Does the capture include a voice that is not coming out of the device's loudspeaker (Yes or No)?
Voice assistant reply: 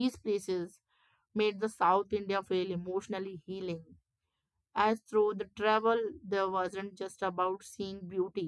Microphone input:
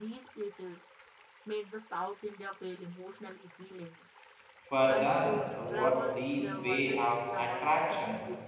Yes